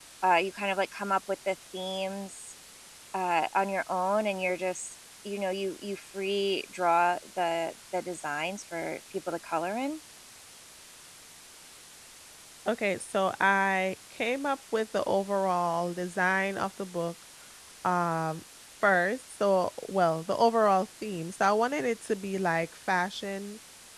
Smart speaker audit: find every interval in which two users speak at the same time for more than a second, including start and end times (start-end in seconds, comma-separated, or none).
none